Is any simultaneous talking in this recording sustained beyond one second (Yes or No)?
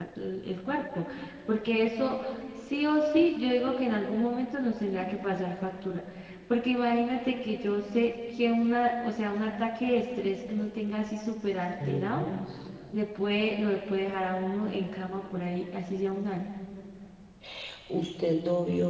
No